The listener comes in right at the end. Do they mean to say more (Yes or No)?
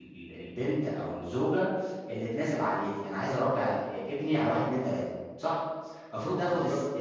No